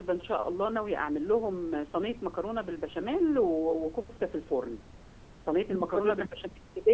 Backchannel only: Yes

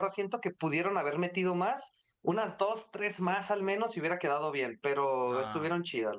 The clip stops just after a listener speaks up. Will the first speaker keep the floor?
No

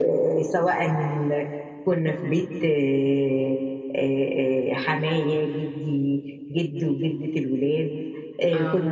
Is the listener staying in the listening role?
Yes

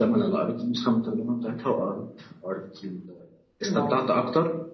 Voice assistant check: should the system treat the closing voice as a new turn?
No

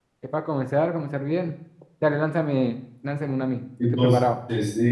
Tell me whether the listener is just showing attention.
No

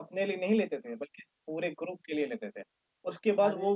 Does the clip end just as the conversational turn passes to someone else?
No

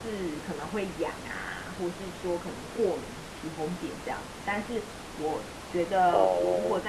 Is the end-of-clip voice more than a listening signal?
No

